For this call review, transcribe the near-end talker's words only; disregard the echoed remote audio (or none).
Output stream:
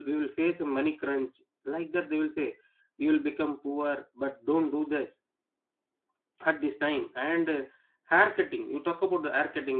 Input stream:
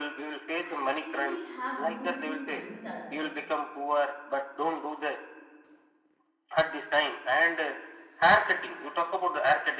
actually have roots in science as well,